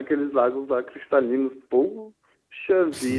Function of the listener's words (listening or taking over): taking over